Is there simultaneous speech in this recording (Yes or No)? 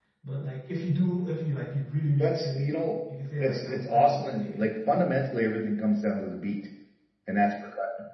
Yes